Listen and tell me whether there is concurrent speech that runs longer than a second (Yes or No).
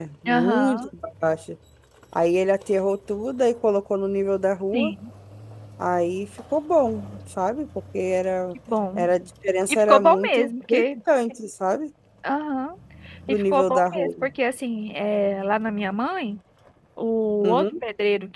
Yes